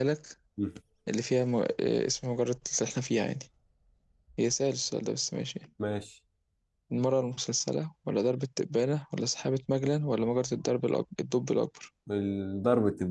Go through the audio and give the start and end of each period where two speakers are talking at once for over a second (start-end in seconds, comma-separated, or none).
none